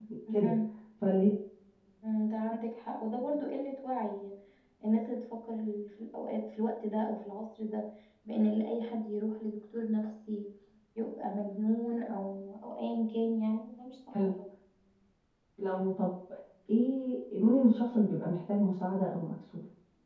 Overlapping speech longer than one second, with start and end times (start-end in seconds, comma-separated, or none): none